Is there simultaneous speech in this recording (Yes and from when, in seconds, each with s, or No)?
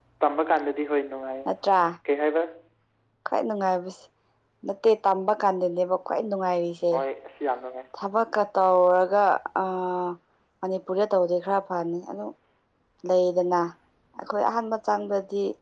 No